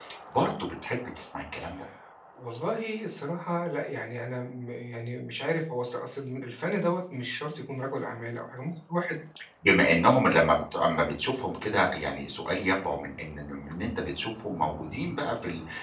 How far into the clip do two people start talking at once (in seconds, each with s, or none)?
none